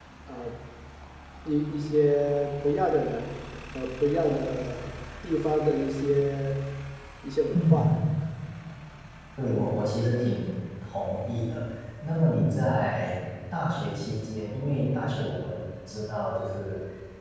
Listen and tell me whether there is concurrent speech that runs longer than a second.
No

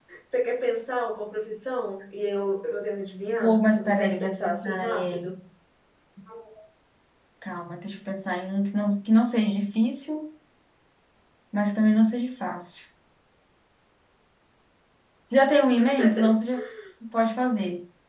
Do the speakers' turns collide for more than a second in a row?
Yes, from 3.4 s

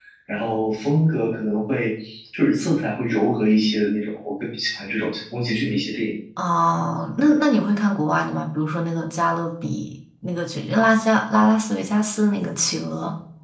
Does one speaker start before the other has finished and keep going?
No

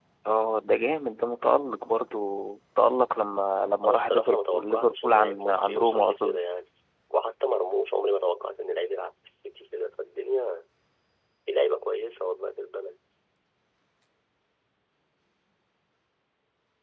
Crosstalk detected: Yes, from 3.8 s

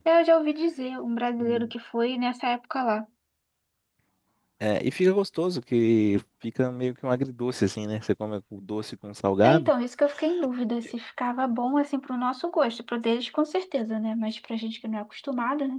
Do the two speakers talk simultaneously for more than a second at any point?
No

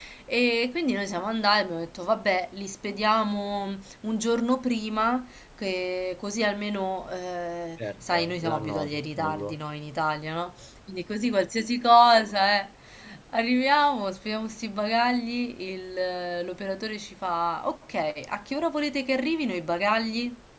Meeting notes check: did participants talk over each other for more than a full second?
Yes, from 7.8 s

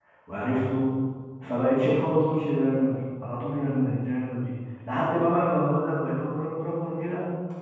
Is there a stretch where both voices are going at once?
No

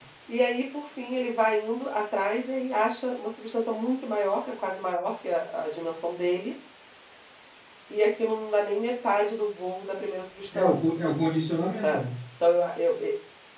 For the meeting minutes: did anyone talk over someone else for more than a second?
No

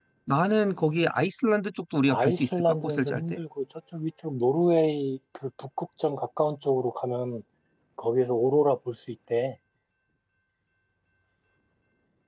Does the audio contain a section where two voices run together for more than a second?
Yes, from 2.1 s

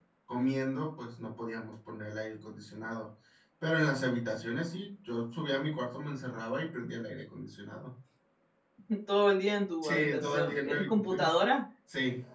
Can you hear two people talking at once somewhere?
Yes, from 9.8 s

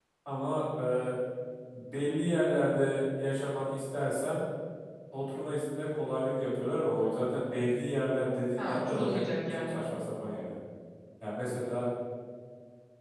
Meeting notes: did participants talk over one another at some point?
Yes, from 8.6 s

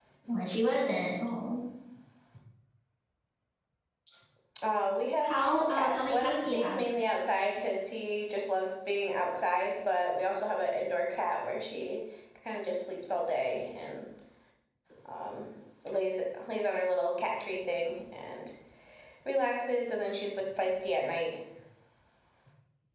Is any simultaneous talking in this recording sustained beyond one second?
Yes, from 5.2 s

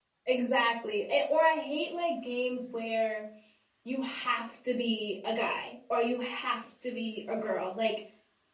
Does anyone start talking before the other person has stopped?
No

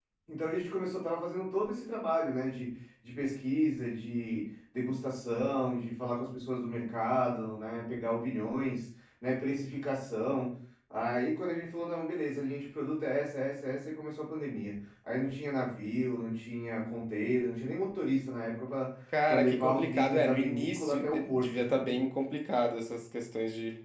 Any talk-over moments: Yes, from 19.1 s

